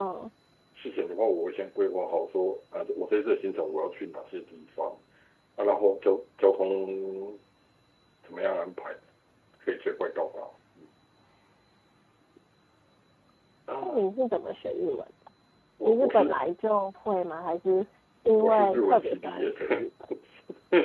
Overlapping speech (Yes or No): Yes